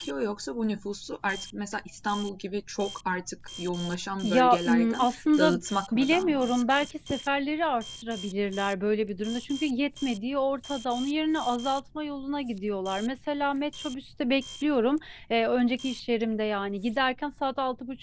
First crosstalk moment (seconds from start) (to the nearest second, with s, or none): 4 s